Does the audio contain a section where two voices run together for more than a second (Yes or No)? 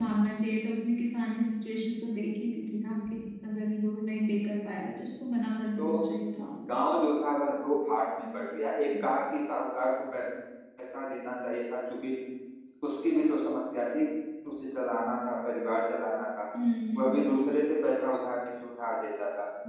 No